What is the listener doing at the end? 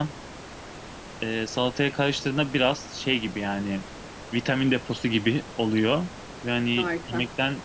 listening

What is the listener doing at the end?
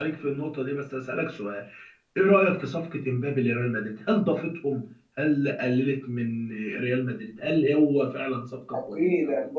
taking over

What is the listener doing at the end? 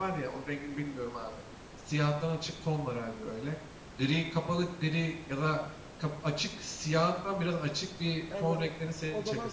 taking over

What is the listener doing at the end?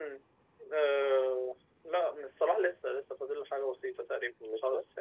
listening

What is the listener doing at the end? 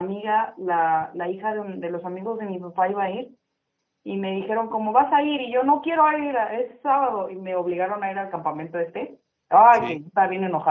listening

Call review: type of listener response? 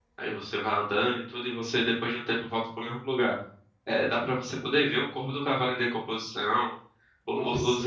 listening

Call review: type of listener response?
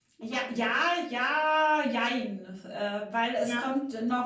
listening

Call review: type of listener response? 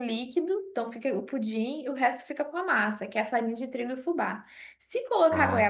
listening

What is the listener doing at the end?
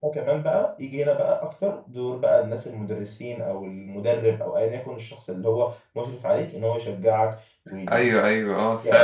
taking over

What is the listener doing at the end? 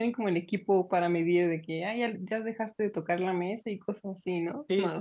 taking over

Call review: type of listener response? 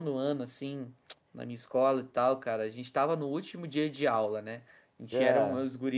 listening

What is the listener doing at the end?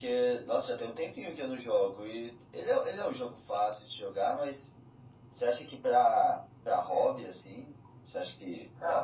taking over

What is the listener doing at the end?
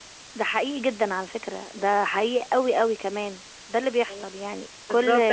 taking over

